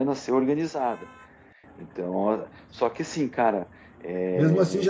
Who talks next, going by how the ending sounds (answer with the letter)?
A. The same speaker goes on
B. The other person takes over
B